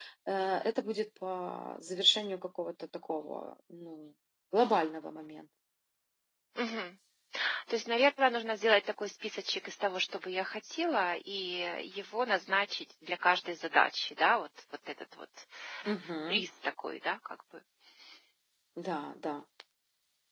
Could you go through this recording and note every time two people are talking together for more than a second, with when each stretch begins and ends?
none

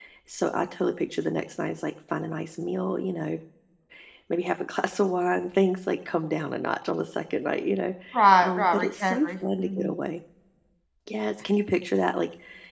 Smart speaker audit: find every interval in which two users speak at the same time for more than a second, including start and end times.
8.4-9.9

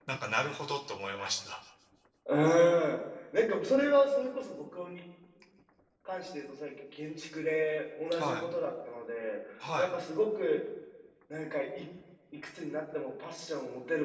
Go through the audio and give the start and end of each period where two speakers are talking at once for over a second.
none

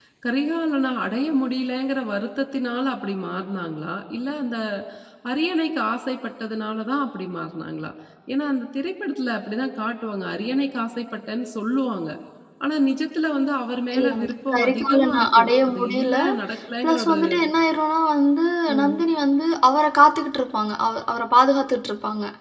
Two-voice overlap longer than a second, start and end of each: 14.5-16.2

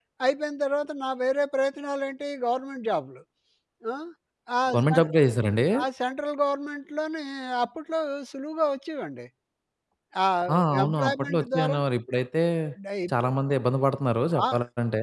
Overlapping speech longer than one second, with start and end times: 10.5-11.8

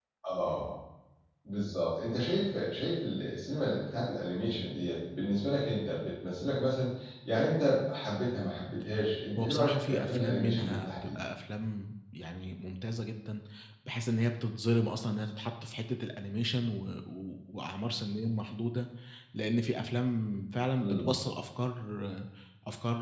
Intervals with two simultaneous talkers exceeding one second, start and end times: 9.4-11.2

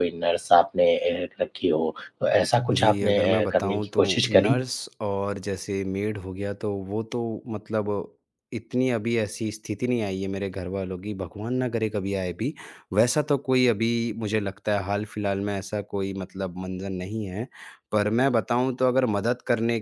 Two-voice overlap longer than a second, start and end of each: 2.7-4.6

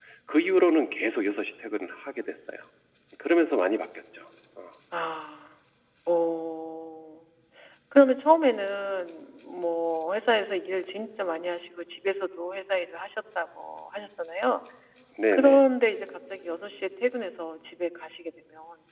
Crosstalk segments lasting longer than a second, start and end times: none

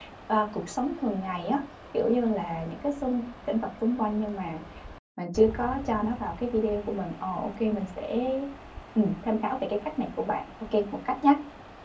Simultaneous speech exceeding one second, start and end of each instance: none

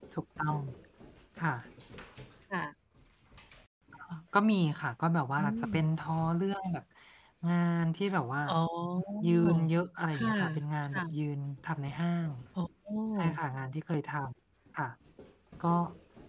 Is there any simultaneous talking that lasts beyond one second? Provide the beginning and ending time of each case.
none

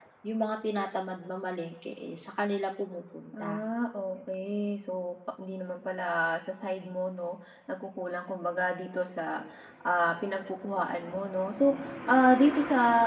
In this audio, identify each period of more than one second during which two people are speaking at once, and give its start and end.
none

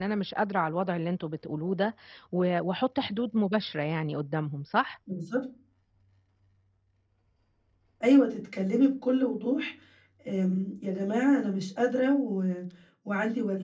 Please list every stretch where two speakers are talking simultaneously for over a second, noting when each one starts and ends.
none

